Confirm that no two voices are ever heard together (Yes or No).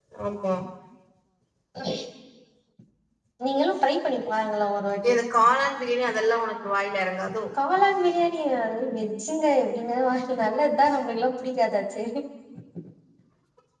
Yes